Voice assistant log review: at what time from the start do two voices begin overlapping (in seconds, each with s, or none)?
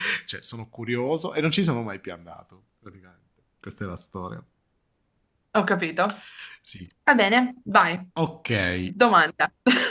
none